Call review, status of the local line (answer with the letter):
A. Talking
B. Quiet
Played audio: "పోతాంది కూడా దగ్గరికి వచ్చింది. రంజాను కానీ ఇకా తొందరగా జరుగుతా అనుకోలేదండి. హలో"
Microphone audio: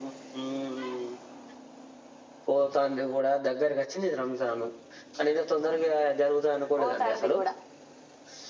A